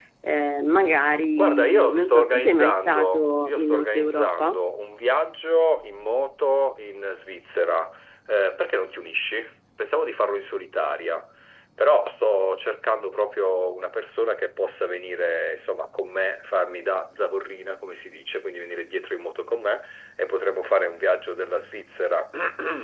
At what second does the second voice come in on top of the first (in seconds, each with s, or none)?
1.3 s